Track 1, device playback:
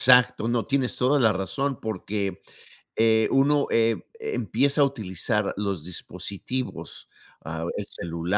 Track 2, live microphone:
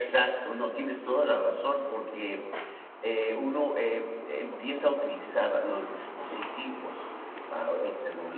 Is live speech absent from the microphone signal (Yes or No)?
Yes